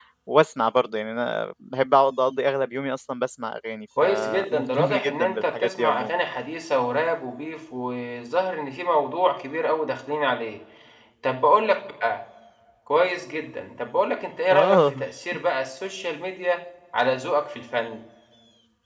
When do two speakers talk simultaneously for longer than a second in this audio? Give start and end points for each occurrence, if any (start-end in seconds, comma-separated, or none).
4.0-6.1